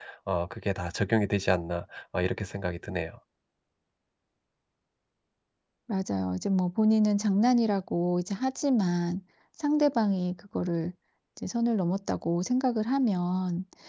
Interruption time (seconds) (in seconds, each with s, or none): none